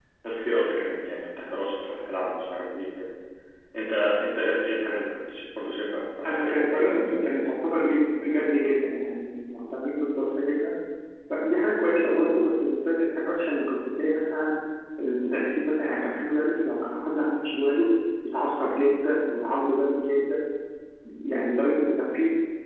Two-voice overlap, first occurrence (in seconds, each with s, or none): 6.2 s